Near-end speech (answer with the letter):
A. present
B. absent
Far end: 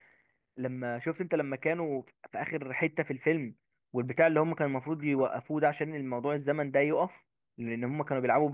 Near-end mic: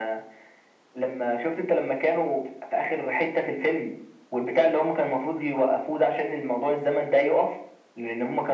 B